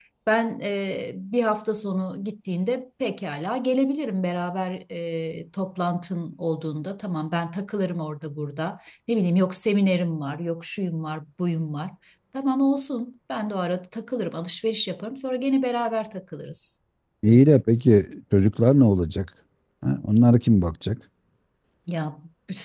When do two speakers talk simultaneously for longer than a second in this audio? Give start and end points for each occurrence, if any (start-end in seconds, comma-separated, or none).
none